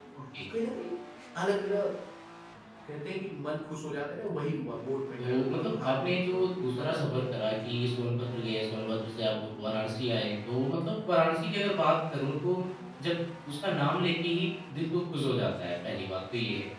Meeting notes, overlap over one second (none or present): present